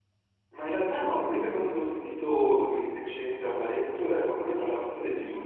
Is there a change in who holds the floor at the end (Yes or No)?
No